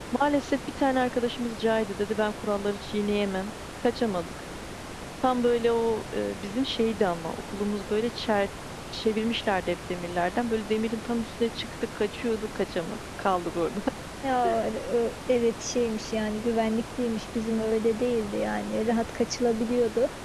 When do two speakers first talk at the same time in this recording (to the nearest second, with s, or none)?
none